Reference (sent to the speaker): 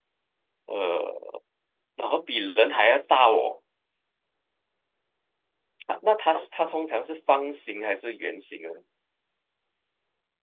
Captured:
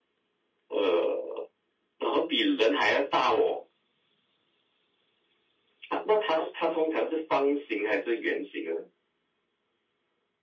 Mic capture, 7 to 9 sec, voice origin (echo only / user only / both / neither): echo only